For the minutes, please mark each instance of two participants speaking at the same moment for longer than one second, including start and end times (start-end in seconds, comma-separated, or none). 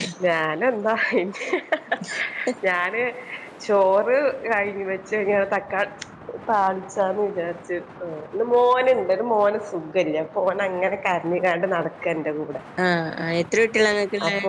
none